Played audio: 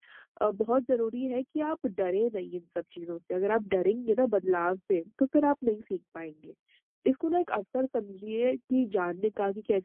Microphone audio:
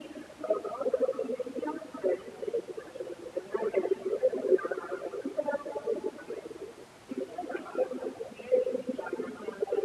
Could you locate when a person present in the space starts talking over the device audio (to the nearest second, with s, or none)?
none